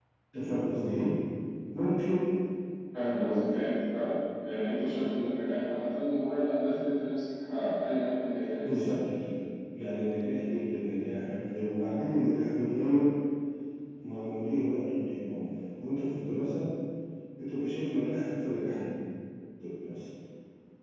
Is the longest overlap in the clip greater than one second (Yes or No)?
No